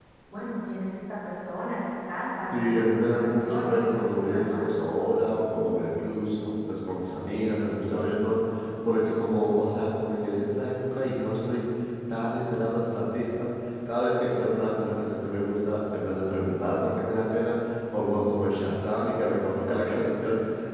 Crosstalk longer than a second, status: present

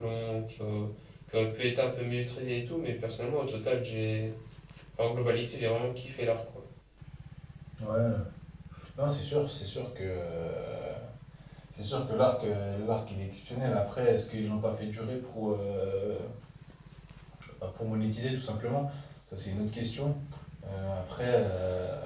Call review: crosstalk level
none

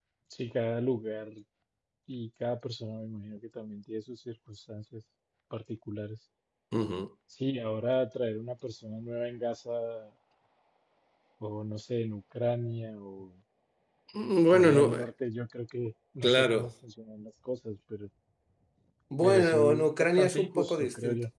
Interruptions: present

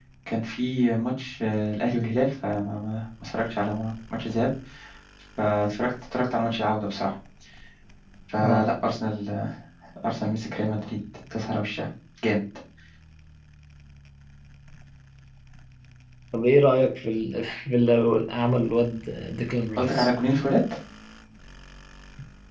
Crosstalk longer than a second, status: none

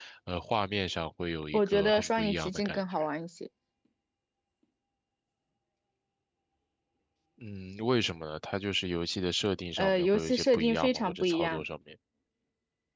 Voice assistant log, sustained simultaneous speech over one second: present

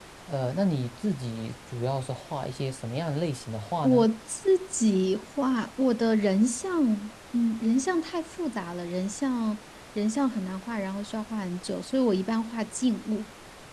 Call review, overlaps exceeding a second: none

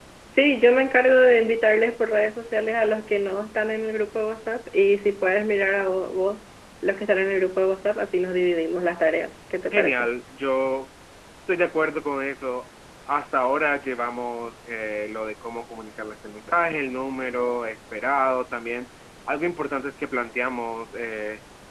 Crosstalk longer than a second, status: none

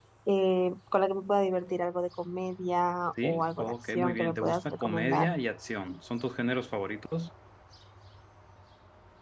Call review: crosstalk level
present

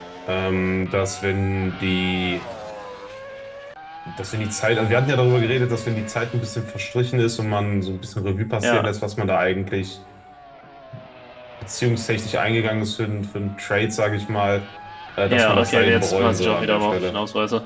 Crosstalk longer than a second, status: present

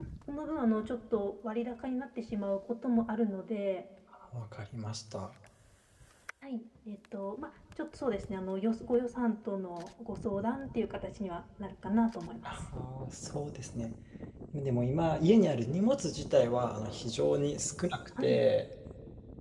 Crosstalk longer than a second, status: none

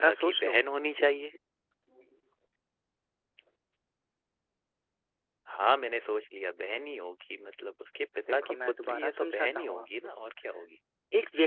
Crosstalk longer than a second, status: present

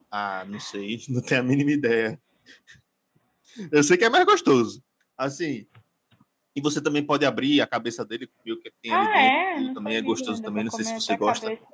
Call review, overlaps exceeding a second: present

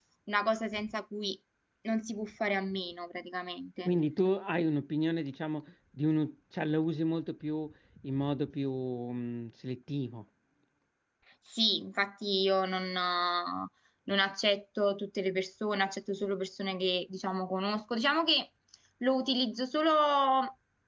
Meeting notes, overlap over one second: none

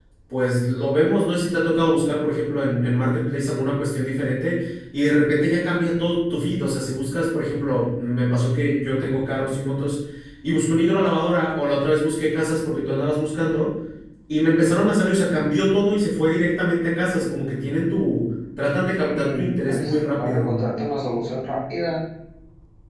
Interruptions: present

